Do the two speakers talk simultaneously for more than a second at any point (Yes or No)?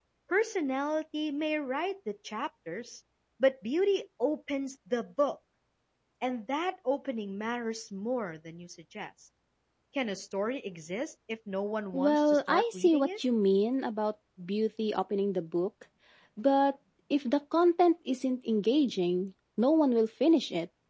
Yes